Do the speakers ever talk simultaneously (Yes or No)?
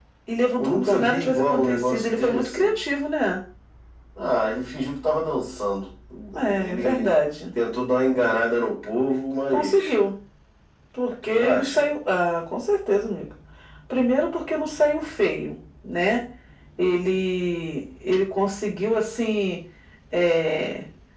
Yes